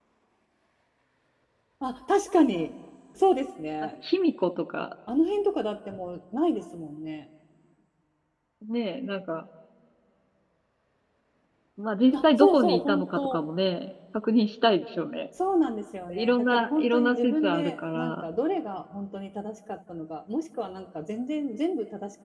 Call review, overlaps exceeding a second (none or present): present